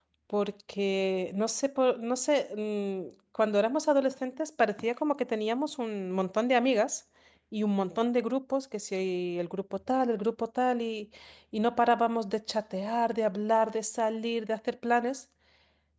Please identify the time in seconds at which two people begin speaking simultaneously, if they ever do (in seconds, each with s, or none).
none